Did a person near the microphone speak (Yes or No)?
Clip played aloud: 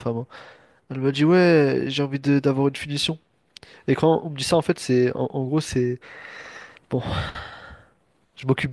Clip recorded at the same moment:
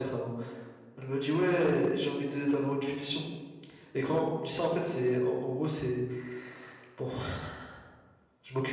No